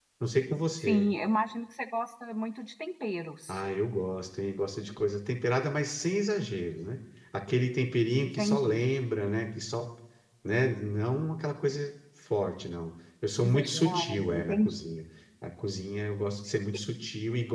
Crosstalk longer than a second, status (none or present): present